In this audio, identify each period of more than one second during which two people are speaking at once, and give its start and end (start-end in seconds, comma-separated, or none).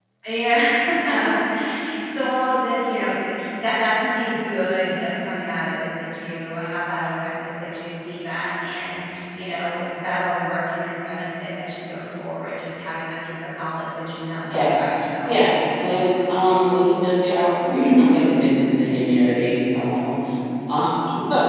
none